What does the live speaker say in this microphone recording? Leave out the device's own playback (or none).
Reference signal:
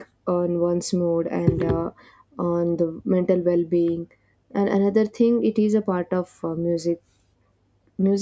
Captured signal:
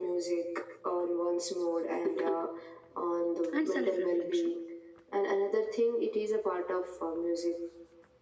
and self-reflection.